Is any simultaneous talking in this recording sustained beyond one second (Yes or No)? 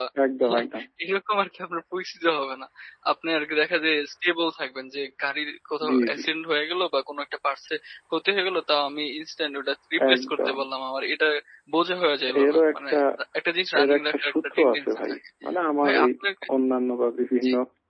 Yes